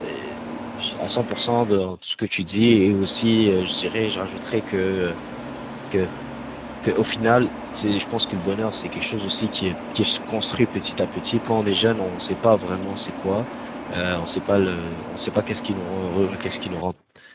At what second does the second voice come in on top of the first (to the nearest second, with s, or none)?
none